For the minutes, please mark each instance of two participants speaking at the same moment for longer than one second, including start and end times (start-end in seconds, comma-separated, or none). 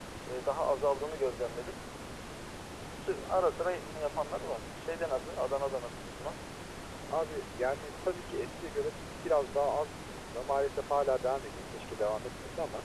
none